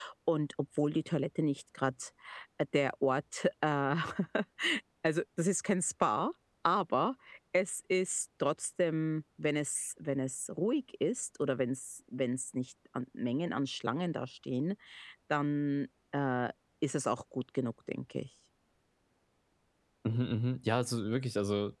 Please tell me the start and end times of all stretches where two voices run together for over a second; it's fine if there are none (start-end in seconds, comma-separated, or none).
none